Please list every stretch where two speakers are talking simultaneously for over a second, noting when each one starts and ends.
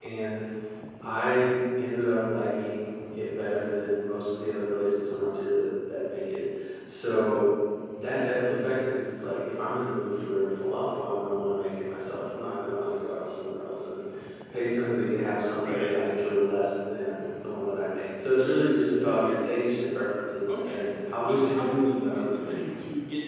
21.2-22.8

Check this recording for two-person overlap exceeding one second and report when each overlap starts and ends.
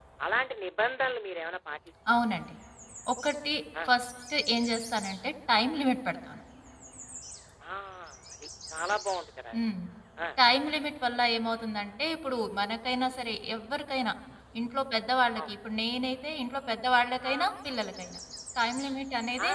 none

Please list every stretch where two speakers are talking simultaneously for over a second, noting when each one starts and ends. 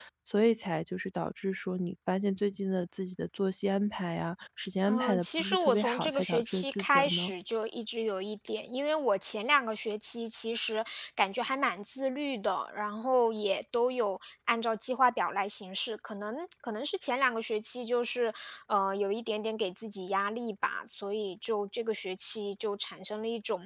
4.8-7.3

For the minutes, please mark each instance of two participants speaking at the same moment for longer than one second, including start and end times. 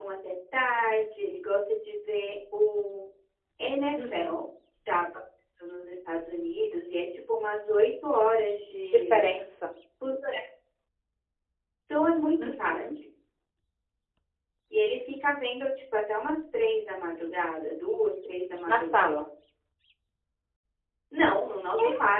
none

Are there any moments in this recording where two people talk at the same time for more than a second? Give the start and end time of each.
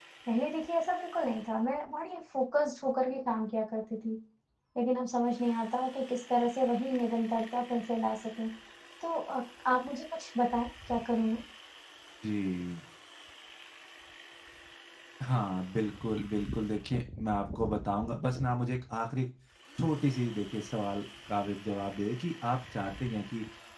none

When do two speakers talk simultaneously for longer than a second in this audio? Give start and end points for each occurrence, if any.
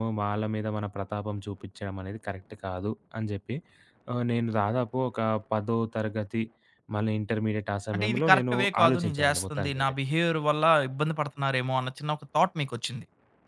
7.9-9.9

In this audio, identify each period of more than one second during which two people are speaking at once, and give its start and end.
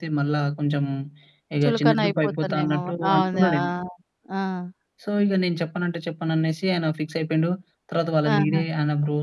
1.6-3.5

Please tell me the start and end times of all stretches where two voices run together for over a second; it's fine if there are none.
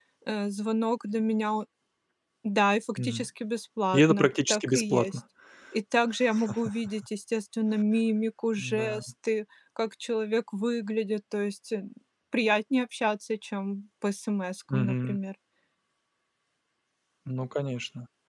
3.9-5.2

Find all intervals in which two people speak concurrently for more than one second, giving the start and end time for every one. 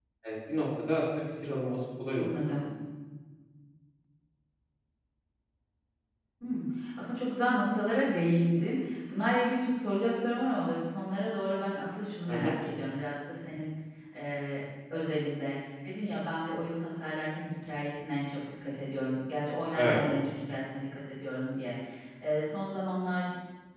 none

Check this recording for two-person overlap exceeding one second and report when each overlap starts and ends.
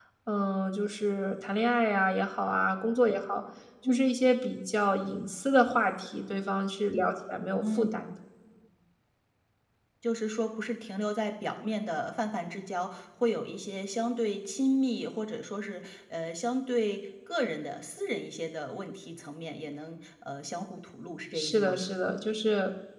none

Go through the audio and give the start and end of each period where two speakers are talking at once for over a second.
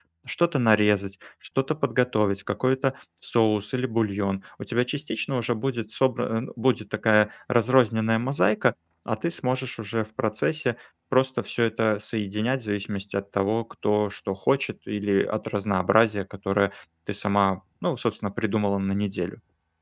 none

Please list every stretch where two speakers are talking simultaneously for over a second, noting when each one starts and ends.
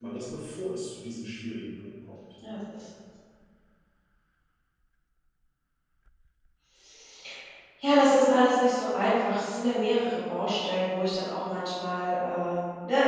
none

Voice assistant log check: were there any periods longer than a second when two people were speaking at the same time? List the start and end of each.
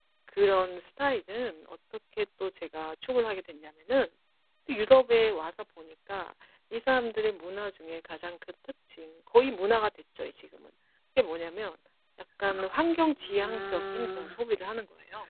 12.5-14.4

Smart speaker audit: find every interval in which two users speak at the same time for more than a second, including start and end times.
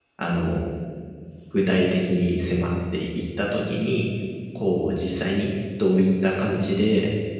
none

